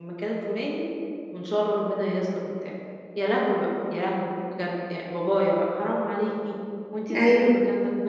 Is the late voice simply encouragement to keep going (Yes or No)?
Yes